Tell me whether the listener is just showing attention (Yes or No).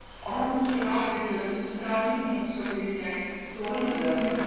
Yes